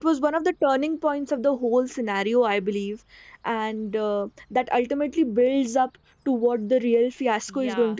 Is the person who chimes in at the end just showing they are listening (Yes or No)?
No